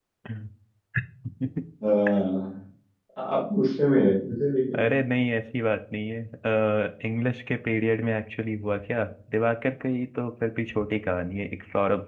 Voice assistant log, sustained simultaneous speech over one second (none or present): none